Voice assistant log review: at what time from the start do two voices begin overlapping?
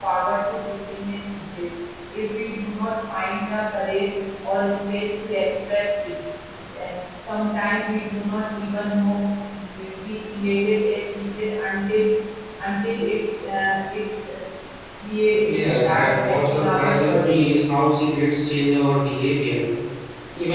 15.4 s

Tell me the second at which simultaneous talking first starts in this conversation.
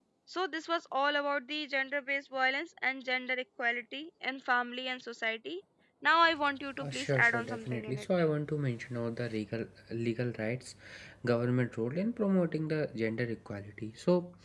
6.8 s

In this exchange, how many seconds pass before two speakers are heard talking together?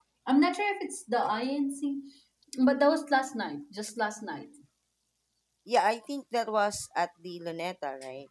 none

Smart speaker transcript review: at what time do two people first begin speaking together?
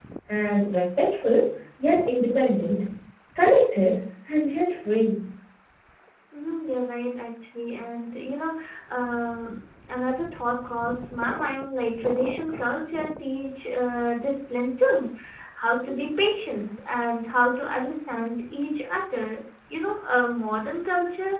none

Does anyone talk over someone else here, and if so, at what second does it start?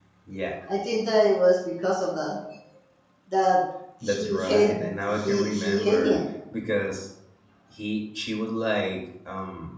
4.0 s

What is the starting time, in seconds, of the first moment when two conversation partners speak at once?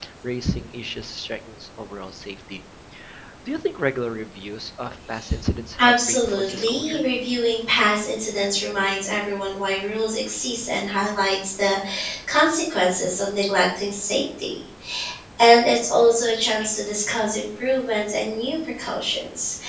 5.8 s

